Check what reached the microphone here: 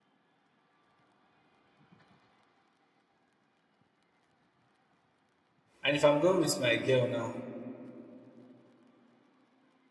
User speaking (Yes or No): Yes